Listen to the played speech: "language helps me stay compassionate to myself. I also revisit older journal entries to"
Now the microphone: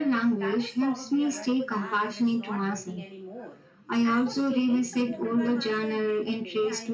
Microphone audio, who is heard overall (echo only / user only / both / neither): both